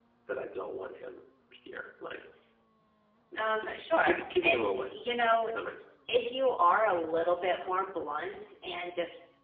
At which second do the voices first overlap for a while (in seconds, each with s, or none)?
3.4 s